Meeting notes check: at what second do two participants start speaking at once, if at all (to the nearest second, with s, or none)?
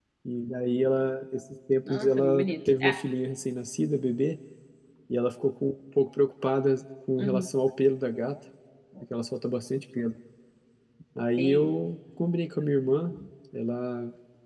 2 s